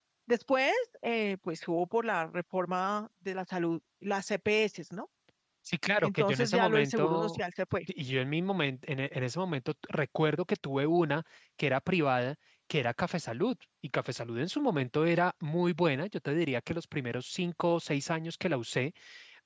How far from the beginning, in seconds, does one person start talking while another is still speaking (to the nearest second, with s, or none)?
6 s